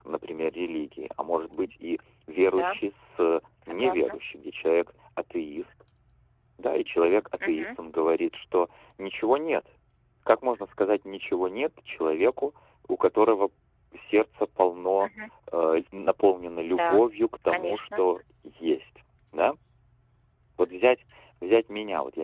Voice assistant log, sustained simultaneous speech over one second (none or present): none